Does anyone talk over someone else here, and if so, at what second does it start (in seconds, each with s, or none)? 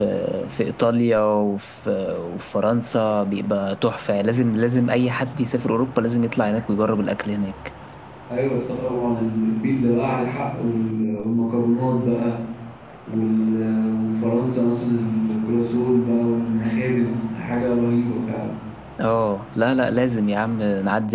none